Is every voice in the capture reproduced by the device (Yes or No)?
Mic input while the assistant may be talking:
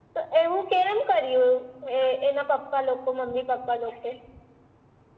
Yes